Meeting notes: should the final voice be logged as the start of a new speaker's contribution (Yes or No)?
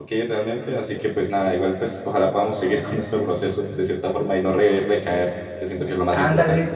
Yes